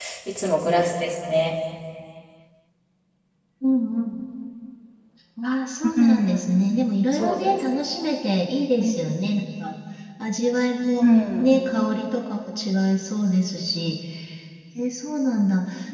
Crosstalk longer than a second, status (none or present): none